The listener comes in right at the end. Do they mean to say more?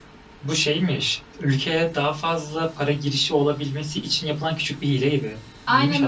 Yes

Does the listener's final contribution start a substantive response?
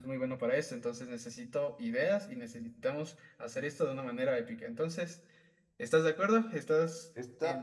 Yes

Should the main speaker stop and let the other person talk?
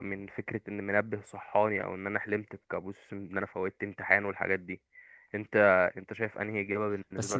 Yes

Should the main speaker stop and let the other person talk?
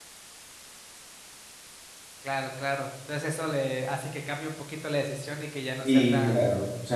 Yes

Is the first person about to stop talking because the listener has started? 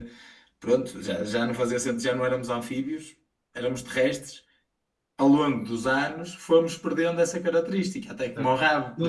Yes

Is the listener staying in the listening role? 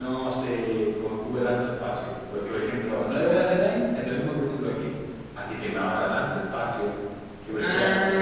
No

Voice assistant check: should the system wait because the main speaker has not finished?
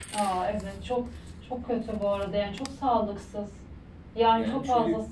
No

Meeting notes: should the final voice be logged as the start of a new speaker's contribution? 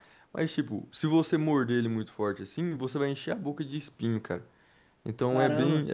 Yes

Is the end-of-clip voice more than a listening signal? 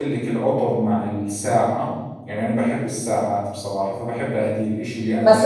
Yes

